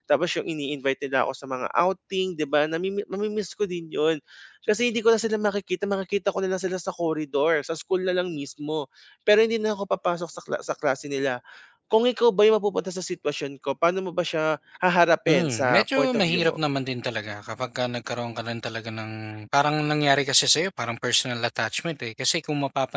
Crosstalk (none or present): present